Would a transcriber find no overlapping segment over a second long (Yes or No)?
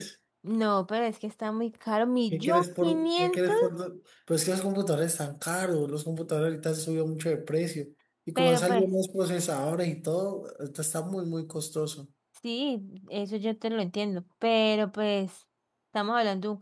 No